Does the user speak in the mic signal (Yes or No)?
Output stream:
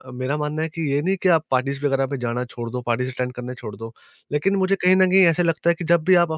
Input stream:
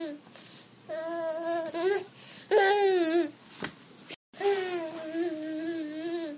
No